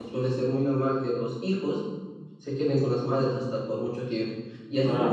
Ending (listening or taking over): listening